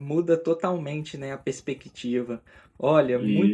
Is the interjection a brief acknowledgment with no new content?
Yes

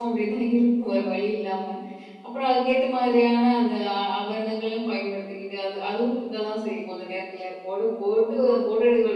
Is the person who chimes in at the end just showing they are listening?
Yes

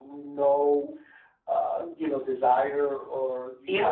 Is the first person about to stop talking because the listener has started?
No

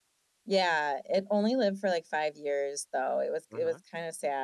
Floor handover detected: No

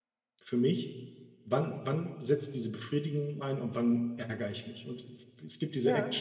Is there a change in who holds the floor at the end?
No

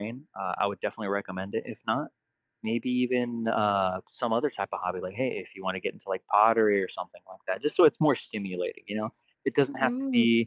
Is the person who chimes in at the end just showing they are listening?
Yes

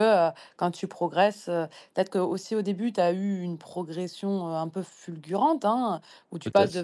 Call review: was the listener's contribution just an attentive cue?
Yes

